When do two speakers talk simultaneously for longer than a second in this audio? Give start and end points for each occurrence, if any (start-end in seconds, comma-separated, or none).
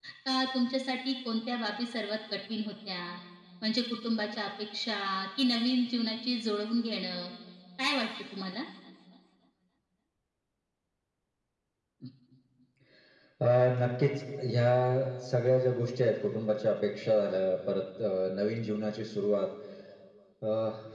none